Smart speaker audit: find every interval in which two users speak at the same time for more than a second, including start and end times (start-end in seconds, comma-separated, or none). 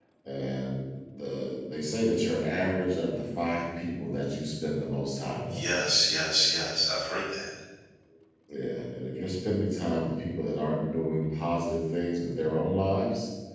none